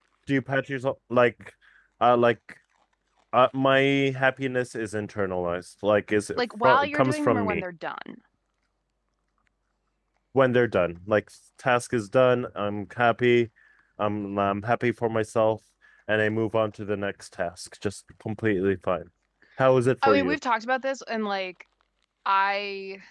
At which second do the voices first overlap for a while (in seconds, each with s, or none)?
6.4 s